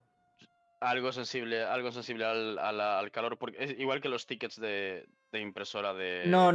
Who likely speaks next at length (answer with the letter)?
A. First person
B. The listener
B